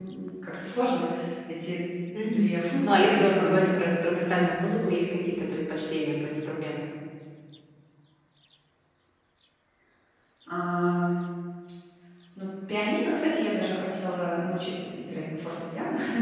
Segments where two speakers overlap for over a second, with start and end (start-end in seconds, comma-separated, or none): 2.2-3.6